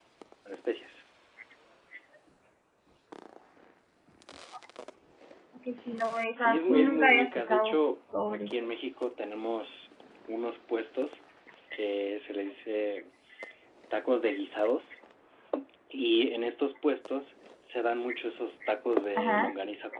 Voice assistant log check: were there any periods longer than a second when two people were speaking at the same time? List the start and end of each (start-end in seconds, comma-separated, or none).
6.3-7.8